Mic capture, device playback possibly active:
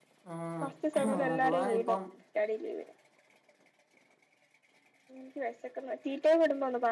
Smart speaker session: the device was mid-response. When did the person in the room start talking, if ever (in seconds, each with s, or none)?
0.3 s